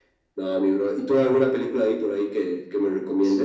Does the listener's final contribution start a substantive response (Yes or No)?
Yes